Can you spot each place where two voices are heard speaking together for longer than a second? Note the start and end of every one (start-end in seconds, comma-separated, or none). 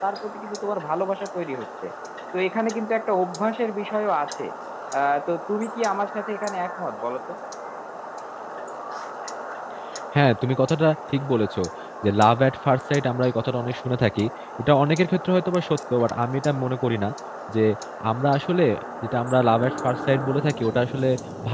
none